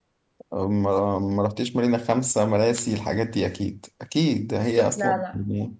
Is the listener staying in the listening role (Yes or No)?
Yes